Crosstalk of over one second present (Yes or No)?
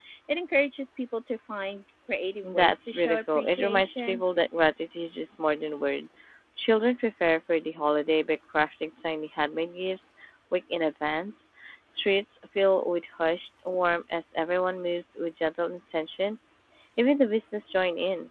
Yes